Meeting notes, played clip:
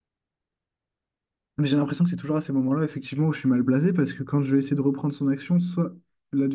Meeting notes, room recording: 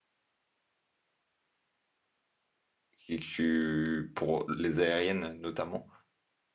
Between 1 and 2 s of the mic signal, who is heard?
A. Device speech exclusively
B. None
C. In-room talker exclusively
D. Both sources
B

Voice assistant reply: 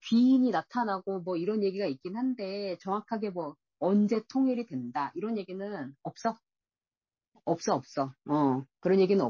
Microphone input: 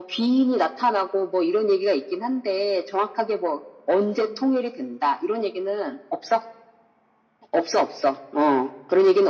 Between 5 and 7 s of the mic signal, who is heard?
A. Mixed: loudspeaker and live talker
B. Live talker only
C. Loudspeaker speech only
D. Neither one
C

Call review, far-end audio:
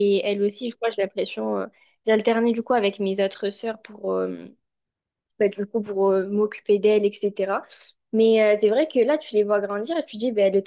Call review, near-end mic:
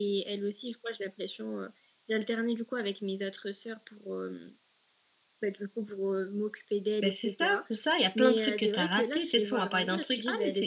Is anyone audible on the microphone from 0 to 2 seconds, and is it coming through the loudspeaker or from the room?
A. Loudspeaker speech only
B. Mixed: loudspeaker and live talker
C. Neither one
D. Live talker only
A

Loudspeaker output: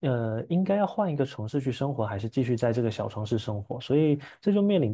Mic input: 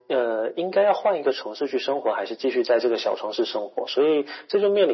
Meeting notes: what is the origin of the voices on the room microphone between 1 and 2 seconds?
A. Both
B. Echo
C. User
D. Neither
B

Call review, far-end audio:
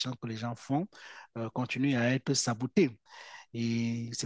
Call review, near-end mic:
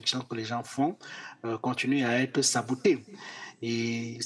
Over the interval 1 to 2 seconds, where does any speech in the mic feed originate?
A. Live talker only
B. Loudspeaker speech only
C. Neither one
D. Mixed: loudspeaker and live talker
B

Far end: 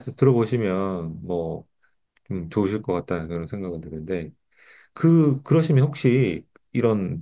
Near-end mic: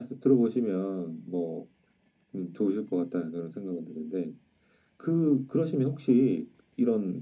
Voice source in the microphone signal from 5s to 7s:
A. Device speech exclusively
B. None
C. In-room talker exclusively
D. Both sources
A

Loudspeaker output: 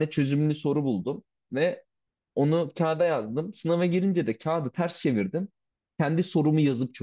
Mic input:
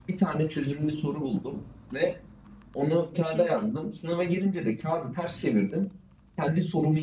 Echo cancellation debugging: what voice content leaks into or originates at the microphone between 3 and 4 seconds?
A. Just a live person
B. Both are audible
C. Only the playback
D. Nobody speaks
B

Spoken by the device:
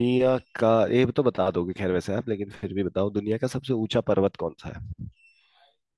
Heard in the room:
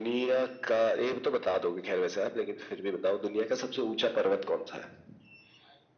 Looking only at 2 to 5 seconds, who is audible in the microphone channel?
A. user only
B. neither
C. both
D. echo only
D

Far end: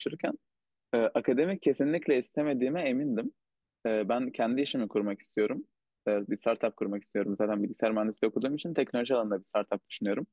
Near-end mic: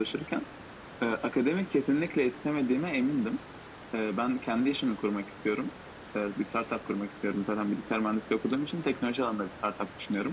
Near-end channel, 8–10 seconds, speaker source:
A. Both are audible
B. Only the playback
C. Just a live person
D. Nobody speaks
B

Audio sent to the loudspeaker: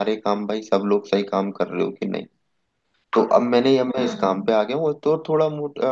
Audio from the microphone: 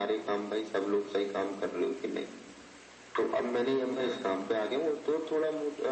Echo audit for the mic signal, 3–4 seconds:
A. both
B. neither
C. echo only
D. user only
C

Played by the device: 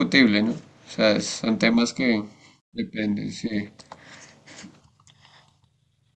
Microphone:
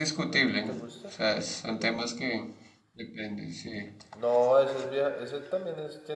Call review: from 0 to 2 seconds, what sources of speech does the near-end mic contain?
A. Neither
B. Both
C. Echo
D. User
B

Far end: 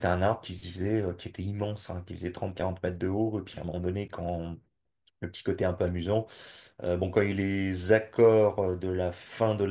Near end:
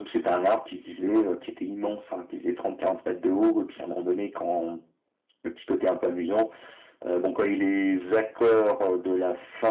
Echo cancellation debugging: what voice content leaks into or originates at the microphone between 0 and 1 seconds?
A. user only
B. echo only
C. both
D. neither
B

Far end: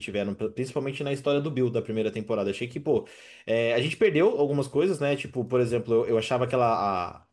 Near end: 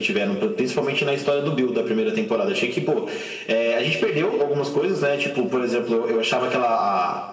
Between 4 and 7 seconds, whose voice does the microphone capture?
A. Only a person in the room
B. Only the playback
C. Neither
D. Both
B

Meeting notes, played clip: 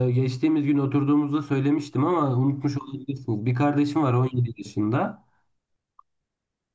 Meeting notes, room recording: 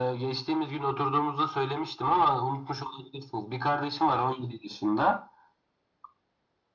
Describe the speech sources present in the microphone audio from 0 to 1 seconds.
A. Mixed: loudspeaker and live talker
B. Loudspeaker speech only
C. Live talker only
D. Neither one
B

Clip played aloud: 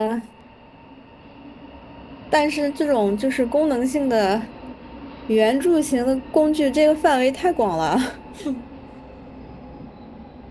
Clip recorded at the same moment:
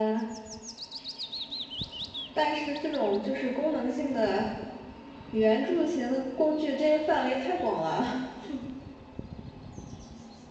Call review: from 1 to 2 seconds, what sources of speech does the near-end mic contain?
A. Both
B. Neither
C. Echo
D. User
B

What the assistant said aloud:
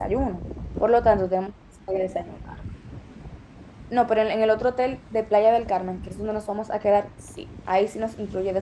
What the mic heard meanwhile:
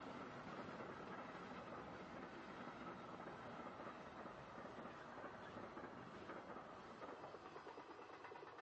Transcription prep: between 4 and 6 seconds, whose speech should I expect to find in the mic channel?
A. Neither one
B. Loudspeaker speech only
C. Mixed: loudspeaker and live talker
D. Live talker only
A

